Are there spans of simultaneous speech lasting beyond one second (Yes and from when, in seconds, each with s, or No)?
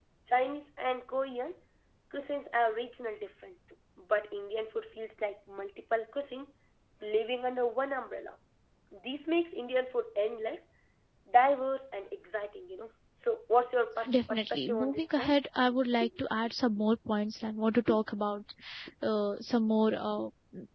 Yes, from 14.1 s